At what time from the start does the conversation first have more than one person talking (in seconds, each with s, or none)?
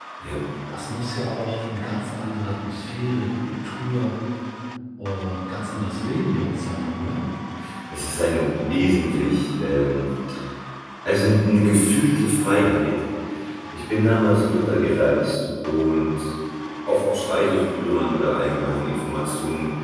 none